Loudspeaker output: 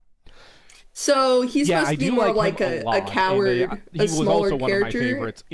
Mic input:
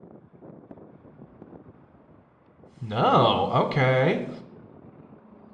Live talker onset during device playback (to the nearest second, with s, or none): 3 s